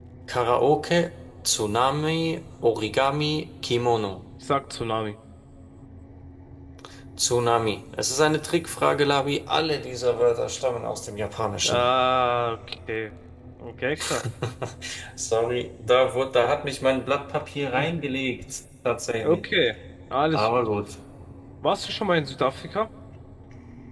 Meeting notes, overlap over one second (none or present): none